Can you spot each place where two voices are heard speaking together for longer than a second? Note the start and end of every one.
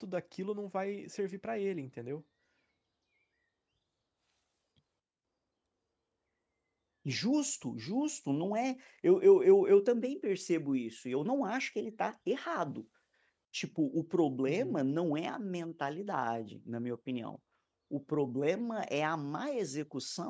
none

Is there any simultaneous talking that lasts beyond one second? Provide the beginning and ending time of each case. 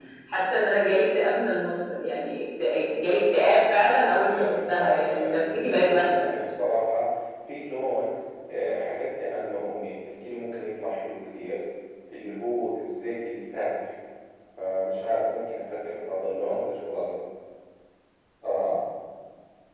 4.2-6.3

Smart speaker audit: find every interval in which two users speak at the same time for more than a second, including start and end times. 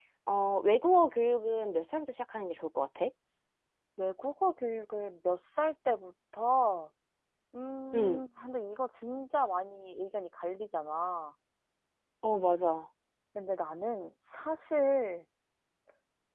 none

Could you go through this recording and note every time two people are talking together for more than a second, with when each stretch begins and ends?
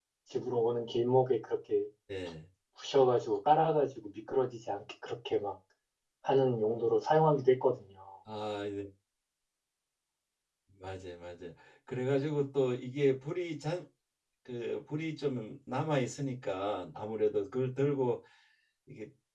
none

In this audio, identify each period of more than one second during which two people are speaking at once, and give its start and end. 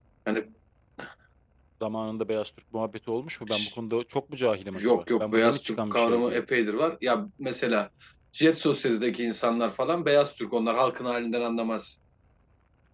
4.7-6.4

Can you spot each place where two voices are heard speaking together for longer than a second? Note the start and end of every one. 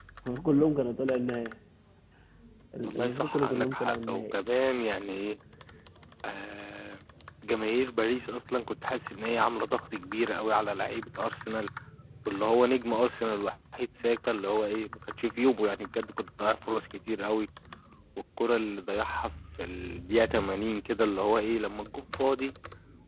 2.8-4.3

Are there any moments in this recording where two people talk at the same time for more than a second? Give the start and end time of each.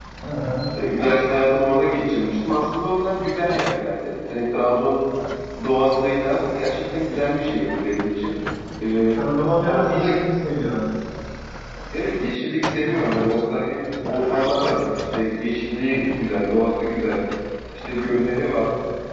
none

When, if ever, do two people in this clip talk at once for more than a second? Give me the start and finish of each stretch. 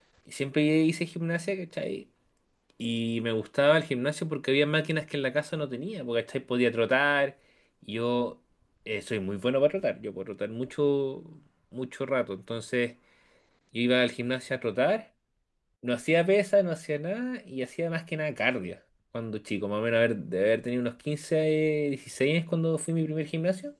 none

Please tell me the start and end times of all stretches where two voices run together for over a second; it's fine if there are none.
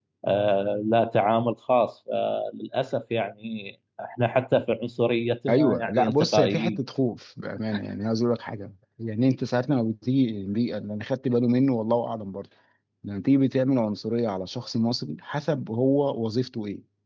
5.5-6.8

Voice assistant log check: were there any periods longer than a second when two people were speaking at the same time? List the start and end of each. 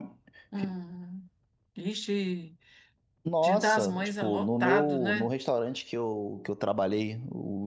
3.4-5.3

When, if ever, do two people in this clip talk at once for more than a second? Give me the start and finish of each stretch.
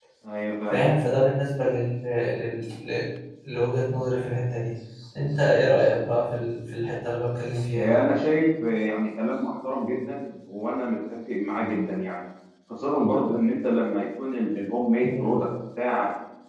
none

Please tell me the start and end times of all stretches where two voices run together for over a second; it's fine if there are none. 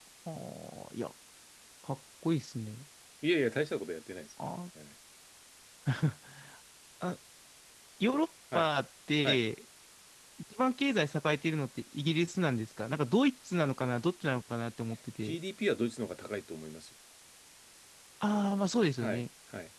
none

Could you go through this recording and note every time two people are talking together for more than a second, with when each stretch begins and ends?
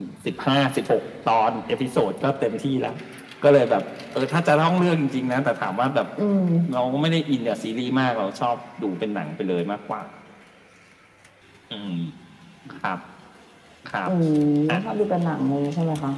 none

